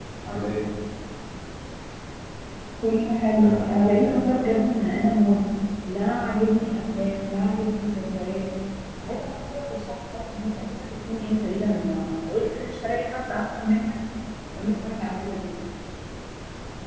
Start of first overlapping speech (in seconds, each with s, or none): 3.3 s